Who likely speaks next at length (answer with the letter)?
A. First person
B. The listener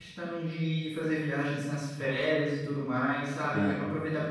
A